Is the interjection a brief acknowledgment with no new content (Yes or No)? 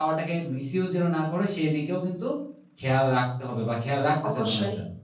No